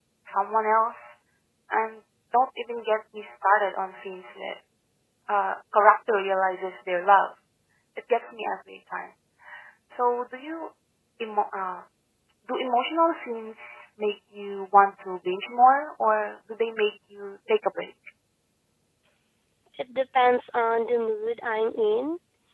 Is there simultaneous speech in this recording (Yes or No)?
No